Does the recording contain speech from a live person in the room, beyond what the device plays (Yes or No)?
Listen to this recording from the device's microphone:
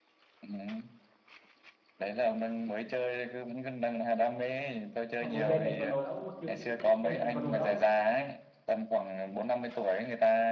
Yes